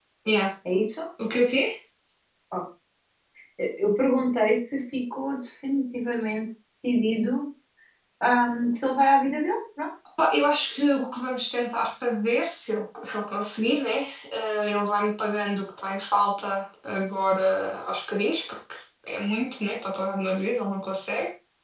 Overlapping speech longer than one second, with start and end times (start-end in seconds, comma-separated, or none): none